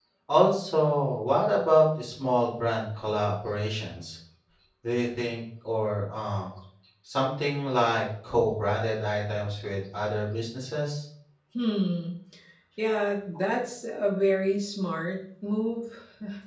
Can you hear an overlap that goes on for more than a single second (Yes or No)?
No